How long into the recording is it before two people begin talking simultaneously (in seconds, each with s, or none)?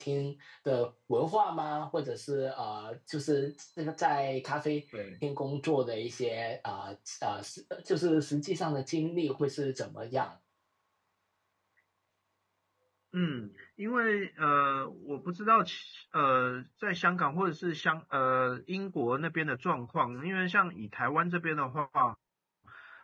none